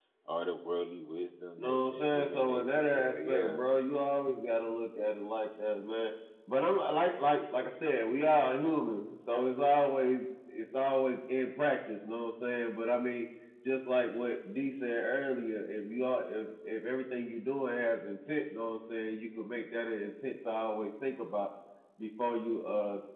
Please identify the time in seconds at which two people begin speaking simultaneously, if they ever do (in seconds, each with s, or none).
1.6 s